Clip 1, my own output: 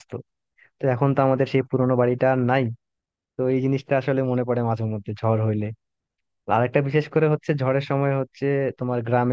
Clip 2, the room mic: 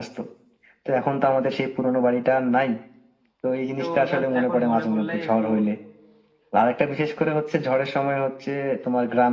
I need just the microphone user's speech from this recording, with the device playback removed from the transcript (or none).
তো জাস্ট এখন মনে পড়লেই একটু